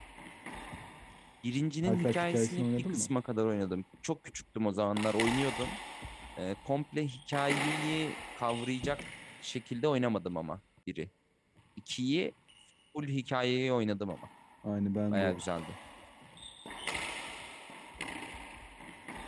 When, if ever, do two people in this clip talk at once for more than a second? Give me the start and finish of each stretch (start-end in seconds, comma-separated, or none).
1.9-3.1